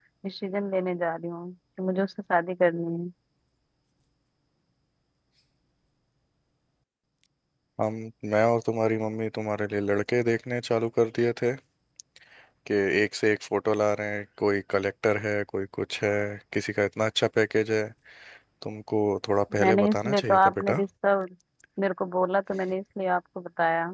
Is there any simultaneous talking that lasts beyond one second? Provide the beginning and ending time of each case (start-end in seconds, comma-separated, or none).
19.6-20.8